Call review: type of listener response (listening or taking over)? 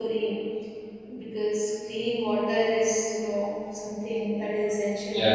taking over